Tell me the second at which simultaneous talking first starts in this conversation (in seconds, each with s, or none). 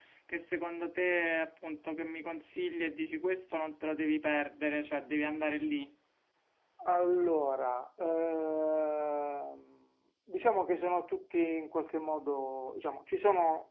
none